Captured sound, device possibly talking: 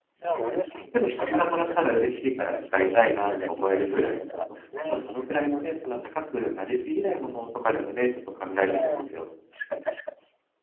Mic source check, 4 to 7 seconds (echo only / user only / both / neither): both